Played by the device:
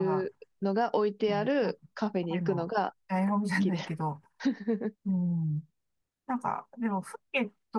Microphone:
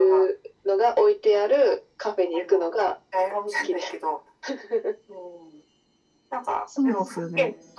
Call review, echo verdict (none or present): present